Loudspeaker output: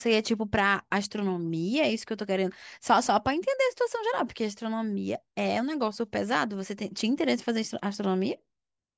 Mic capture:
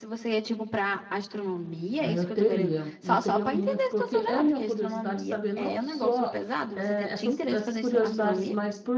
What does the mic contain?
both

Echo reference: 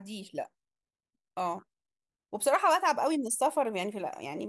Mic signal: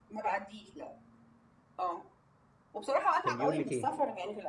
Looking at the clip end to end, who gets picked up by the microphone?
both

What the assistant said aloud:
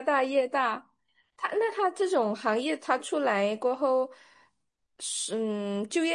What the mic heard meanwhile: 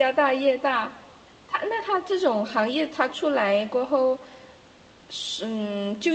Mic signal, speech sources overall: echo only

